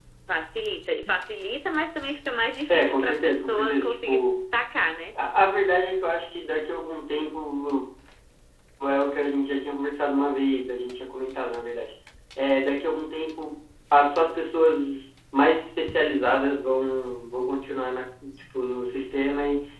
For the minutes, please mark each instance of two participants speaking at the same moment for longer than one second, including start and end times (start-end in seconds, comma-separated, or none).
2.7-4.5